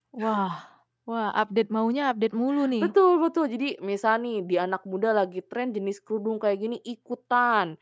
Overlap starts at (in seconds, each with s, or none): none